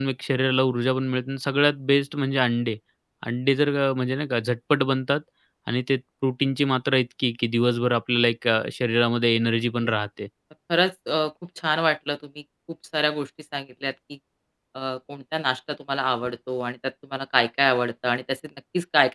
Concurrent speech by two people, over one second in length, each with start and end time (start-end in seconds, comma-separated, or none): none